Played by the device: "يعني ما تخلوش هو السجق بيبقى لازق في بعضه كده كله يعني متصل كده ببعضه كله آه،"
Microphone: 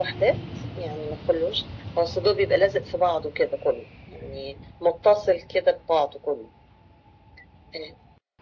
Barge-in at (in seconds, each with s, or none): none